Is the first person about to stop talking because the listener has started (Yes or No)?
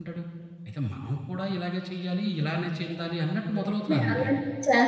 Yes